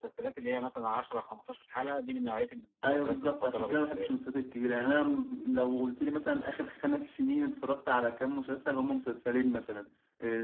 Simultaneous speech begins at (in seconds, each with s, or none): 2.8 s